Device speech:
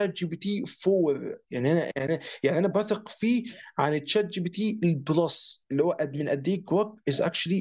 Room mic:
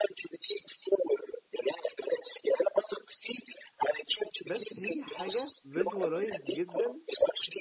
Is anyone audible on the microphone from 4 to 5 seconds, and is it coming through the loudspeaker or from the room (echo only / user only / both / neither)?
both